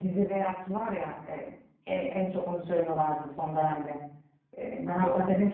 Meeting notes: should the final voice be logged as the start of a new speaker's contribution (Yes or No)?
No